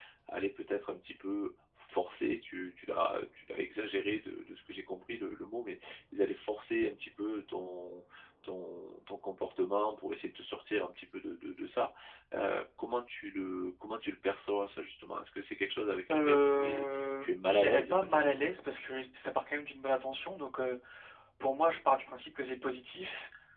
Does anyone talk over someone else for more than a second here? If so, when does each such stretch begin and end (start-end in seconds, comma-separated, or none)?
16.1-18.4